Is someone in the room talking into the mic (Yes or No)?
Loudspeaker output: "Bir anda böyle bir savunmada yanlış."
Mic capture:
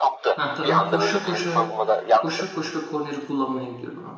Yes